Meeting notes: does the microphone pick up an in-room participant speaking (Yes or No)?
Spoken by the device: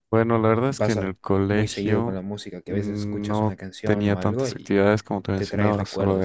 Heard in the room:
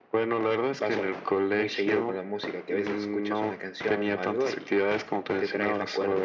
No